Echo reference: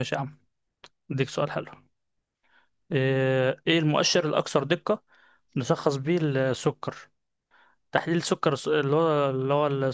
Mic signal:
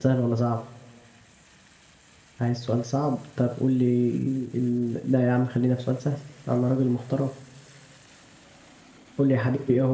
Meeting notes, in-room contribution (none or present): present